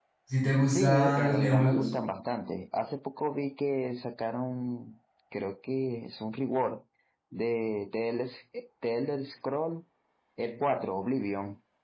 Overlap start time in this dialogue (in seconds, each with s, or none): 0.6 s